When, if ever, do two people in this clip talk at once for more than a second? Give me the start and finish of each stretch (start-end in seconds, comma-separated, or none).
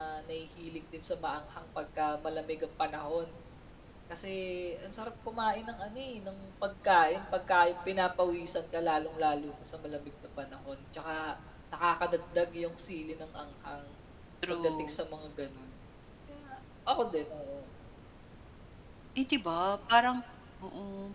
none